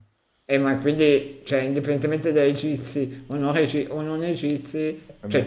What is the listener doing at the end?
listening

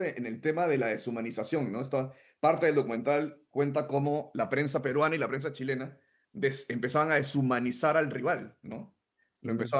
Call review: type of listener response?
listening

